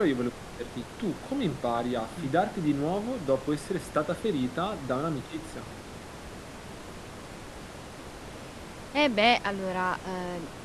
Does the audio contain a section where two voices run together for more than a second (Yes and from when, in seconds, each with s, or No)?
No